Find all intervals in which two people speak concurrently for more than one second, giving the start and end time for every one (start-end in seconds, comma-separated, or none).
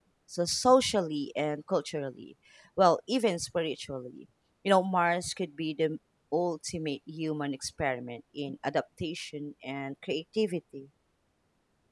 none